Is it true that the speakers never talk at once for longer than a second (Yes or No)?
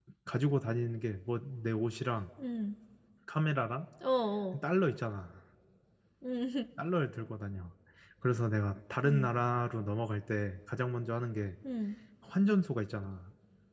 Yes